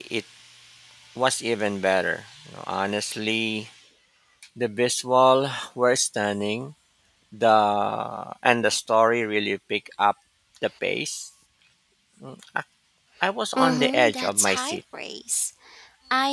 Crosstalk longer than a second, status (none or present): present